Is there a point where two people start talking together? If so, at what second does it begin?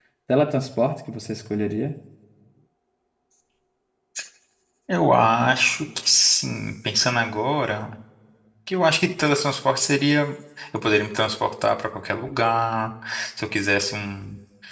none

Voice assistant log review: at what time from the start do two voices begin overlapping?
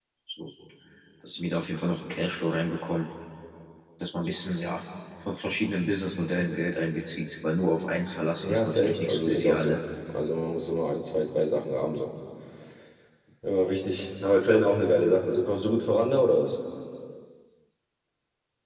8.4 s

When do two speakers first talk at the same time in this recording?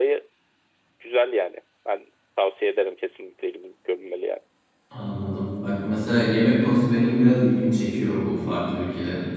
none

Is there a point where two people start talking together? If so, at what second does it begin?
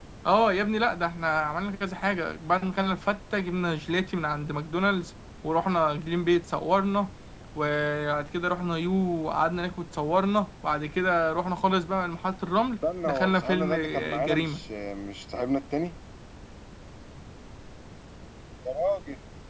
12.8 s

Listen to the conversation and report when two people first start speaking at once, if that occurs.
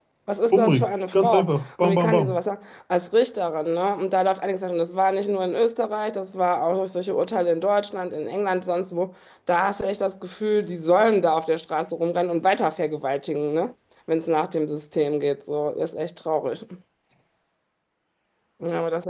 0.5 s

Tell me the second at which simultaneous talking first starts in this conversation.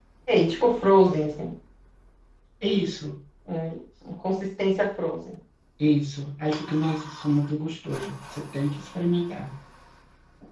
none

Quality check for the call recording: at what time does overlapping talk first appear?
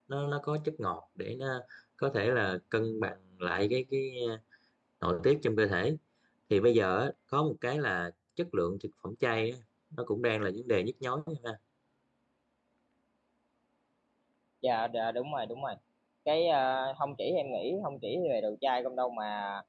none

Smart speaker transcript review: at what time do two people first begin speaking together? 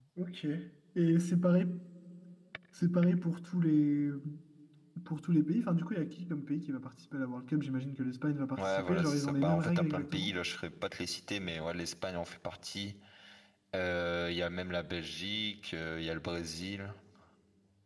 8.6 s

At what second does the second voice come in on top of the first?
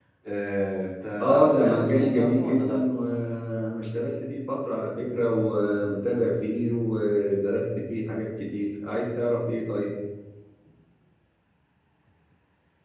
1.2 s

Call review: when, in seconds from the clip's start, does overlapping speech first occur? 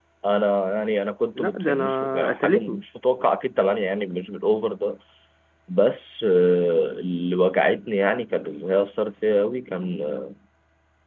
1.4 s

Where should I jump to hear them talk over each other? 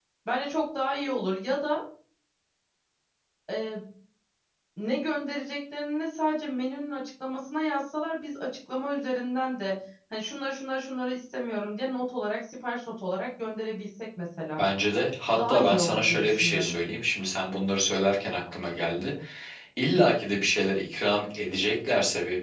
15.4 s

